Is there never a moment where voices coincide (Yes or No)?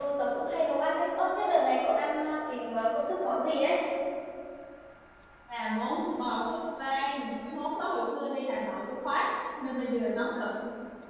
Yes